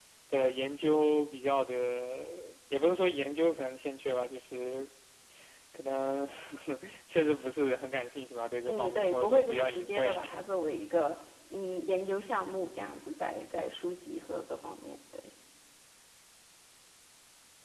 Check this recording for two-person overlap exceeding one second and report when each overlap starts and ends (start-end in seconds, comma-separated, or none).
8.7-10.4